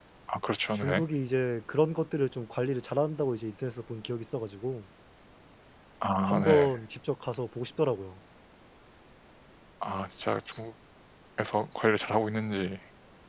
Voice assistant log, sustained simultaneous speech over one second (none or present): none